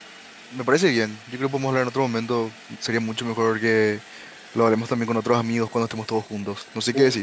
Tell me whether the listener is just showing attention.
No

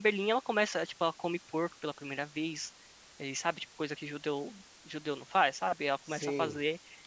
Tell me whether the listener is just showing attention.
Yes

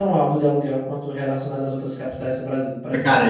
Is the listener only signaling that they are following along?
No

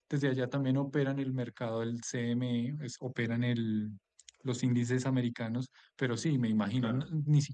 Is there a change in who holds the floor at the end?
No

